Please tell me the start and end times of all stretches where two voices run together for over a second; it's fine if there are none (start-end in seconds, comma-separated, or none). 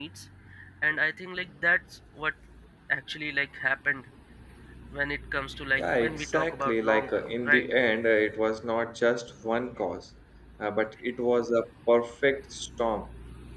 5.8-7.6